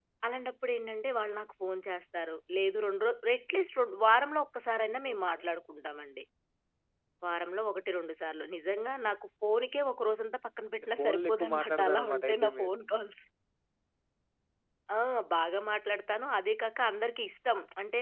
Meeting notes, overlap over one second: present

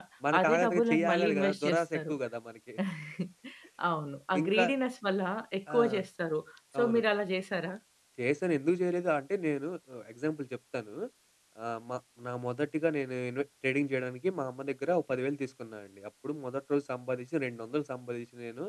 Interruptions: present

